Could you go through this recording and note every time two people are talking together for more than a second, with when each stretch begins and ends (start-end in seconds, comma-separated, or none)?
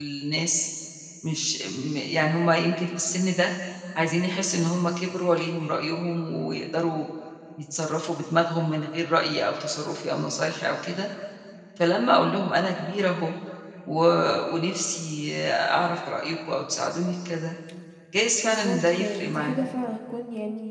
18.4-19.7